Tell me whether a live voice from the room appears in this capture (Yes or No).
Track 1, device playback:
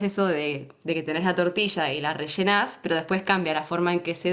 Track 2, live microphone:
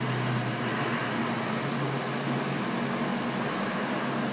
No